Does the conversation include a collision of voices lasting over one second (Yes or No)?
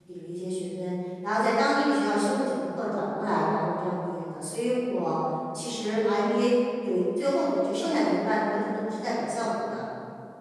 No